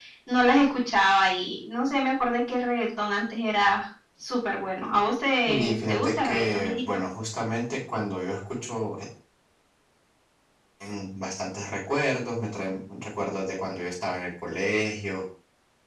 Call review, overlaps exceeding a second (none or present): present